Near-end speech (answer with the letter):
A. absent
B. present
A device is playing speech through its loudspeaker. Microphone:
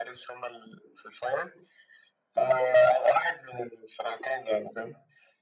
A